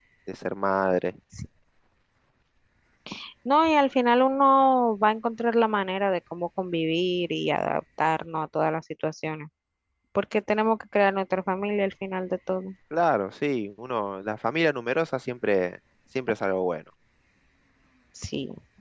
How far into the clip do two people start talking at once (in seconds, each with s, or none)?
none